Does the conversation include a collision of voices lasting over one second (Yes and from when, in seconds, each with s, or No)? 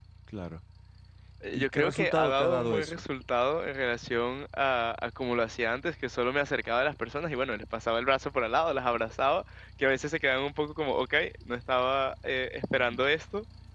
Yes, from 1.5 s